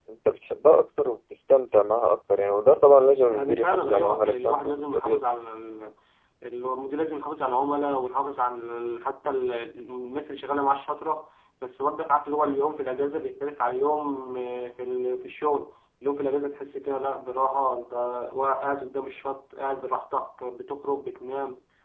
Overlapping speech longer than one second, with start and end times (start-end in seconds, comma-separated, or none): 3.3-5.3